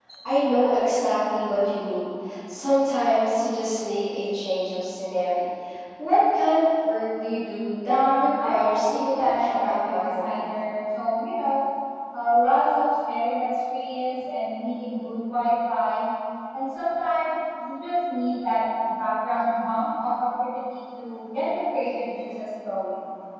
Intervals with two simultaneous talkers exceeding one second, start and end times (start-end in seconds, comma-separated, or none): 7.9-10.4